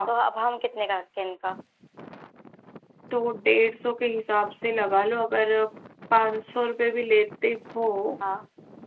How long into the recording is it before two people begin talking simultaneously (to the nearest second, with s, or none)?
none